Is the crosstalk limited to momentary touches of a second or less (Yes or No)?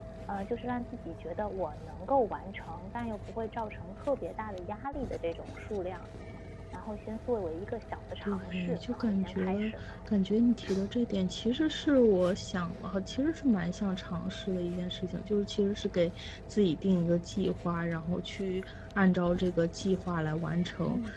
No